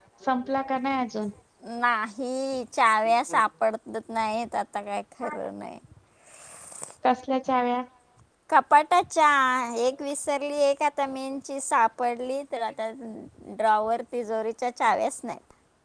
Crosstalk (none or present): none